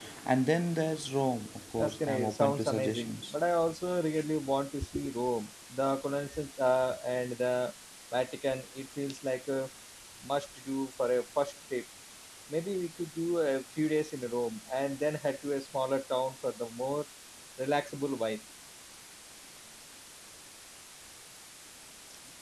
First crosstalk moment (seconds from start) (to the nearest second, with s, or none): 2 s